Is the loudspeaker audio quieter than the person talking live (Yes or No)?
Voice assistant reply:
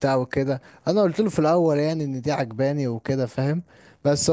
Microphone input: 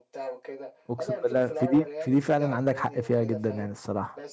Yes